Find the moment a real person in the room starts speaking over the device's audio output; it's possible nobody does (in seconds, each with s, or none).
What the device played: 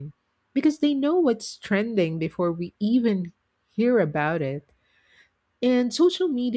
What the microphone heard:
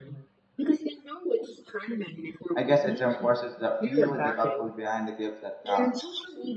2.5 s